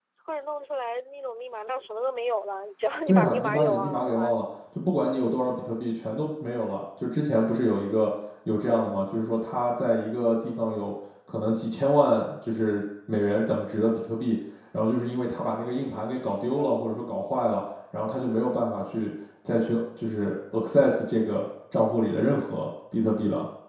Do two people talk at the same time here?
Yes, from 3.1 s

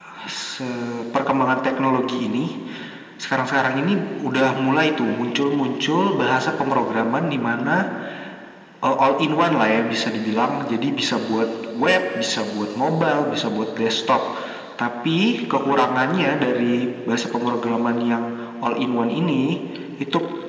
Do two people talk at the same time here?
No

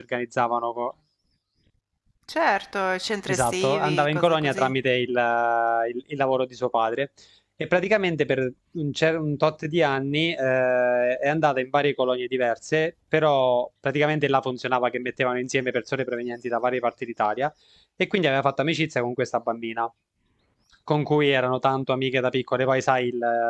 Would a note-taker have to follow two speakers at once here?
Yes, from 3.3 s

